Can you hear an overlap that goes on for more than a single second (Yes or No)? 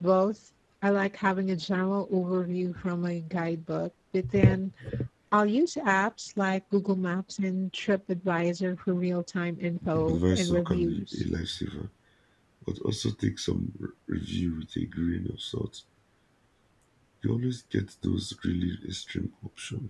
Yes